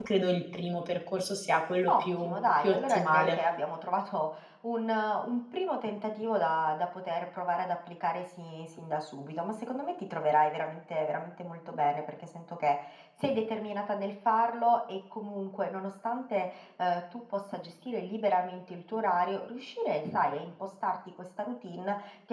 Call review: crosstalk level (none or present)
present